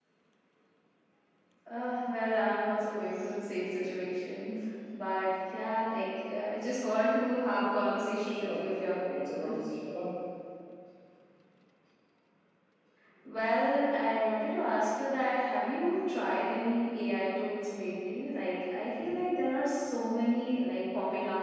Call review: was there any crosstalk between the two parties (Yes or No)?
Yes